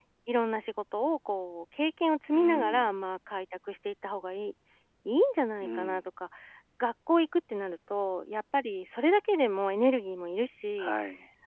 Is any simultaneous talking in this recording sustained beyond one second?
No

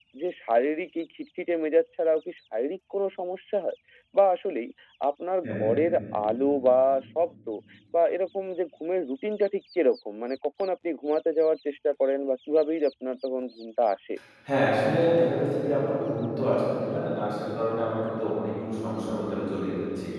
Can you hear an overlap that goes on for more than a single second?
No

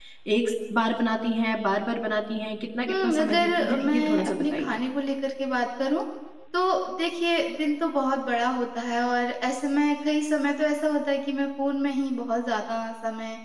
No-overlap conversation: No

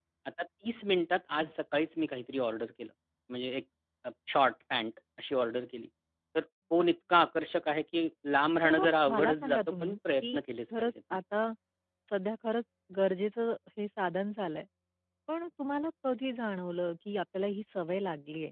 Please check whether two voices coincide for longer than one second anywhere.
Yes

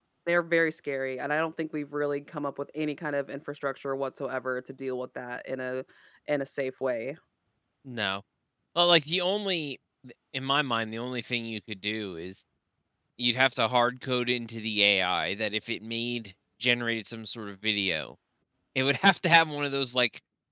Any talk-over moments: No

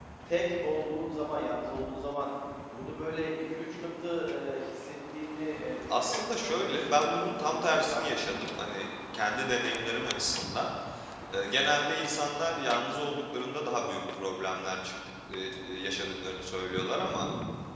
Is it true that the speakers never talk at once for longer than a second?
No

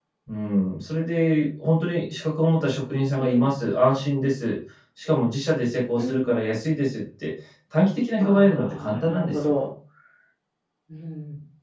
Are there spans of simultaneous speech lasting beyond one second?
Yes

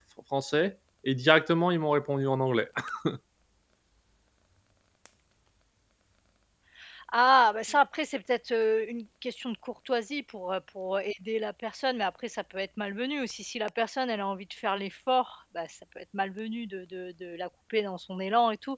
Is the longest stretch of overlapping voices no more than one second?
Yes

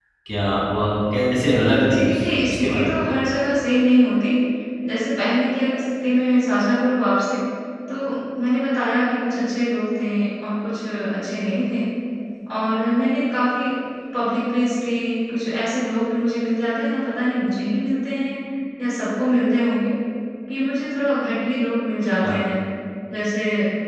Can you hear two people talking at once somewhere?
Yes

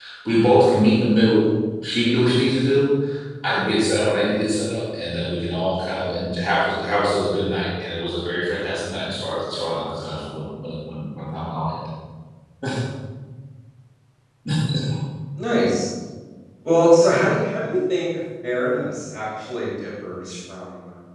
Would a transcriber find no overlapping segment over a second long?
Yes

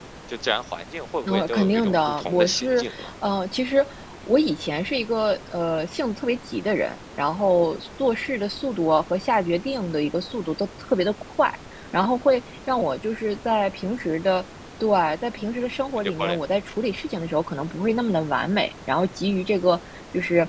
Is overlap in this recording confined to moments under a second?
No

